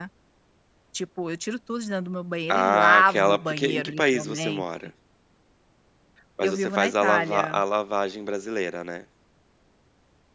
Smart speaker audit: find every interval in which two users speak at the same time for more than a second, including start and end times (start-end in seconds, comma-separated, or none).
2.5-4.6, 6.4-7.6